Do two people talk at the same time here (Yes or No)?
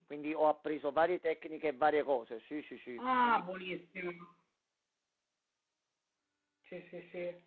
No